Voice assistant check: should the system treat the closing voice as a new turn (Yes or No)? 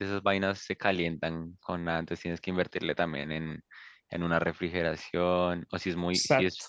No